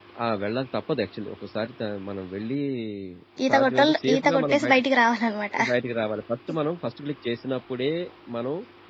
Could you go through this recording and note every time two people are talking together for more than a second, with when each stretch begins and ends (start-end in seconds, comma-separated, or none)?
3.5-4.8